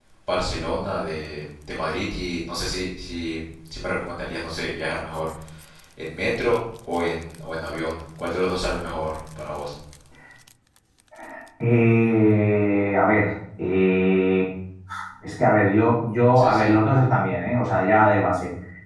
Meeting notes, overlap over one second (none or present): none